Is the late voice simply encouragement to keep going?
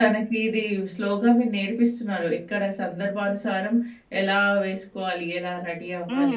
No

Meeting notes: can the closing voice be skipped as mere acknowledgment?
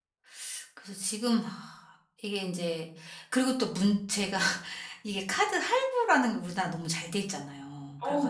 No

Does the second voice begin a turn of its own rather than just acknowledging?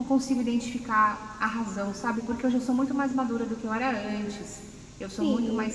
Yes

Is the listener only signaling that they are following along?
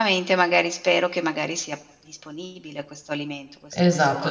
No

